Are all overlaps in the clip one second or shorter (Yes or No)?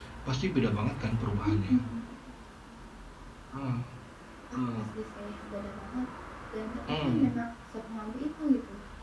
Yes